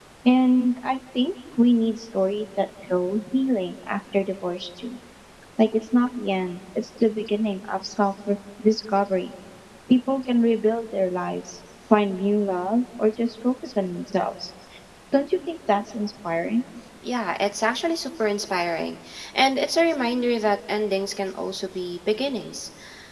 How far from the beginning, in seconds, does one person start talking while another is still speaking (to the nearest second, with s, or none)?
none